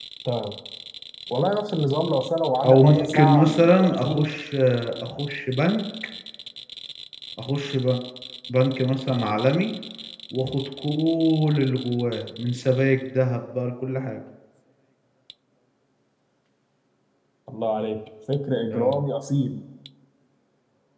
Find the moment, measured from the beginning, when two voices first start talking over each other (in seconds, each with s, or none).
2.6 s